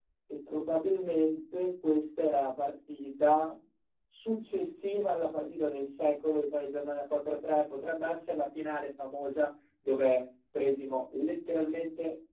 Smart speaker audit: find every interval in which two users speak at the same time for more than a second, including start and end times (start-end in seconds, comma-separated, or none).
none